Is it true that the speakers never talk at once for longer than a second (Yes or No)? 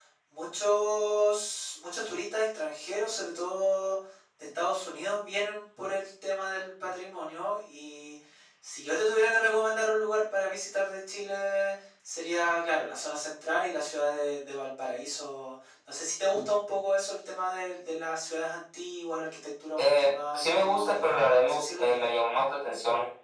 No